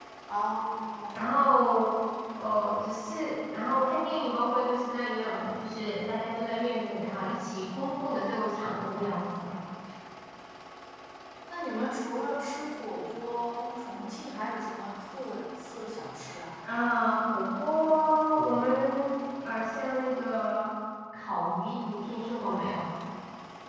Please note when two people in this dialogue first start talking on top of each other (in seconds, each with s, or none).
none